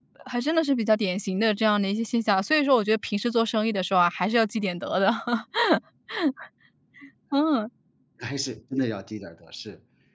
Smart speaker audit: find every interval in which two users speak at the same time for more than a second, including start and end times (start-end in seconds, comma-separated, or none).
none